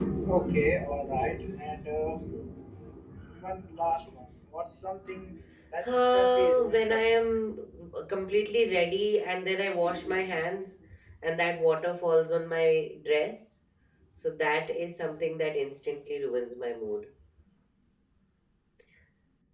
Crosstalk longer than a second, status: present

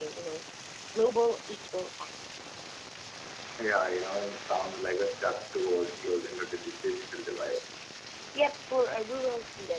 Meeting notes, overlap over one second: none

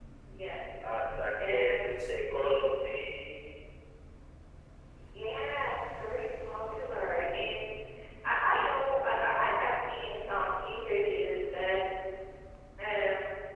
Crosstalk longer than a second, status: none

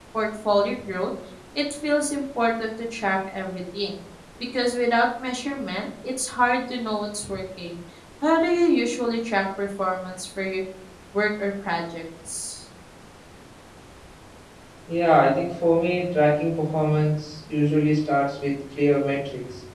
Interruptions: none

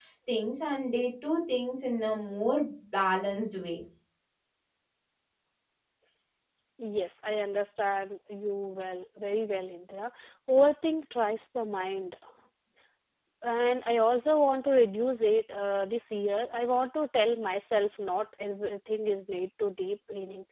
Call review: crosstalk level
none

